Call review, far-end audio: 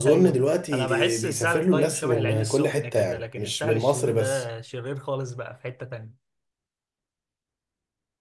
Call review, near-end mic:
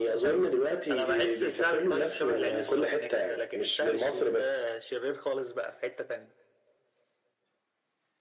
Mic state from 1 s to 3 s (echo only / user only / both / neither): echo only